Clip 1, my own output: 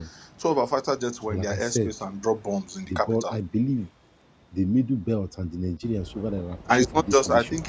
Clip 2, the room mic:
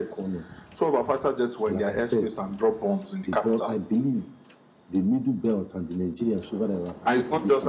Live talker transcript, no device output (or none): none